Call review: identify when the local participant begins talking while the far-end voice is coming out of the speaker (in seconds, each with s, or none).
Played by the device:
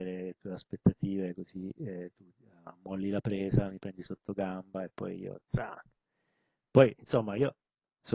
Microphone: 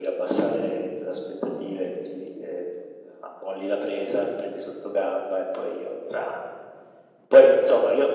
none